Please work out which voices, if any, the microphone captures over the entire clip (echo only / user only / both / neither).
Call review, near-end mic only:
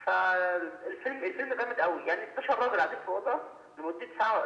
echo only